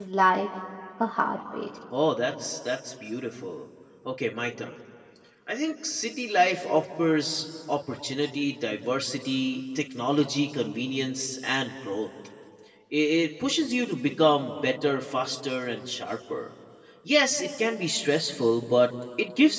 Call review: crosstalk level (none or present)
none